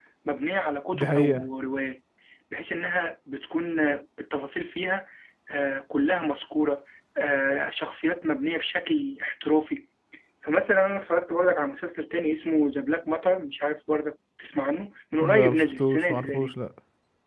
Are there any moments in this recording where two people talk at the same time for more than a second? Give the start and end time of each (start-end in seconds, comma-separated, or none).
15.3-16.6